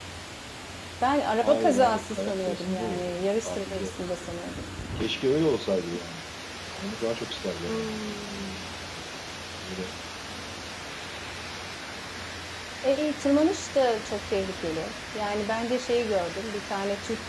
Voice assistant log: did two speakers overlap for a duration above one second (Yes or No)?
Yes